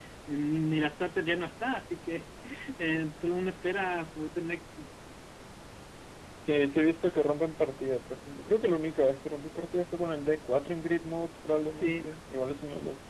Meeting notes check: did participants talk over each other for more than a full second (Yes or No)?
No